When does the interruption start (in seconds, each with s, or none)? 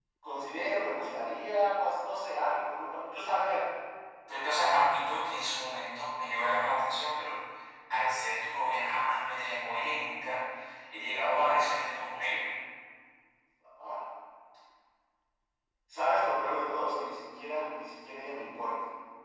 none